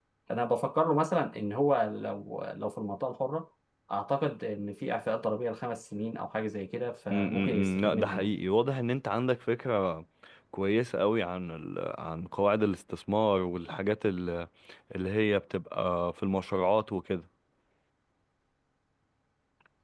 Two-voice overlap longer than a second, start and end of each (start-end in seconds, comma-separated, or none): 7.1-8.3